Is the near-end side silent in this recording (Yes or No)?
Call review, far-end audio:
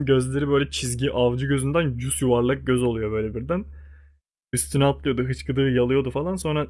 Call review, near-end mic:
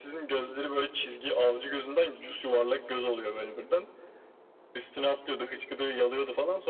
Yes